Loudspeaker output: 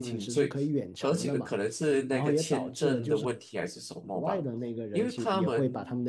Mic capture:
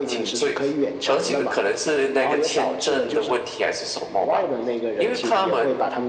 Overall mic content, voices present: echo only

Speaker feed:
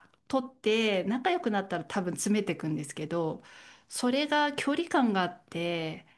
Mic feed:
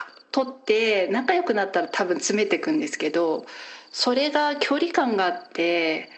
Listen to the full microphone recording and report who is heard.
echo only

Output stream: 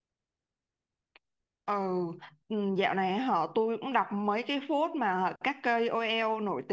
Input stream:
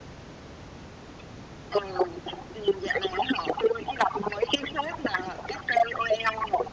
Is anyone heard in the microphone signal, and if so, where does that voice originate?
echo only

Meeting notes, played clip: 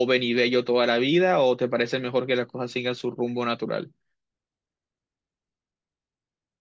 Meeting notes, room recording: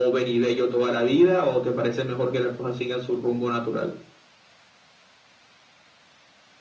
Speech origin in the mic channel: echo only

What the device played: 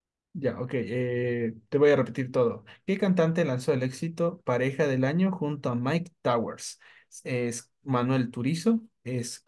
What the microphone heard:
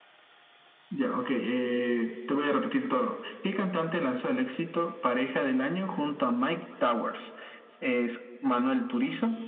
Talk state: echo only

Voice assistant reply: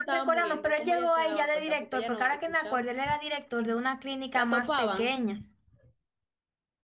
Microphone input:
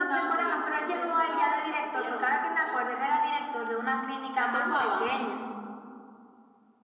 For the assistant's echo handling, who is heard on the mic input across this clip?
both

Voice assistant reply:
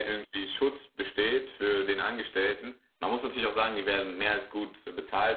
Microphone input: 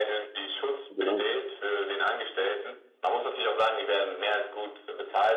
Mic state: both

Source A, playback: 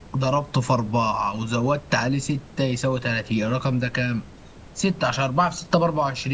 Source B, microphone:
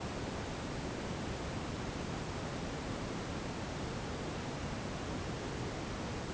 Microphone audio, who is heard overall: neither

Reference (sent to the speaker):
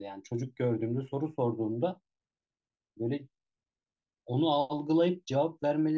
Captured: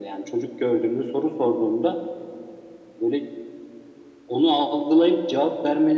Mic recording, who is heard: echo only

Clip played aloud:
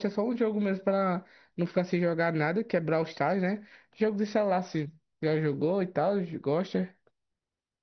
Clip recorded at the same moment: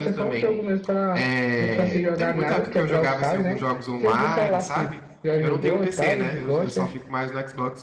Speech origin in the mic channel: both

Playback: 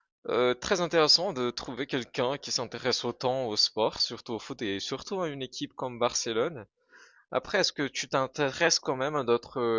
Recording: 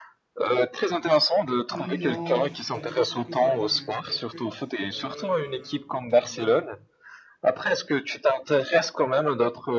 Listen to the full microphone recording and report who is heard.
both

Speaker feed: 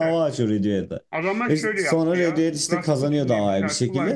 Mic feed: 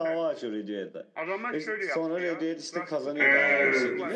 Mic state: both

